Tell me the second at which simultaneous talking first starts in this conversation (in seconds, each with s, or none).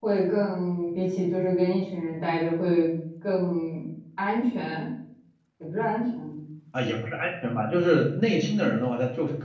none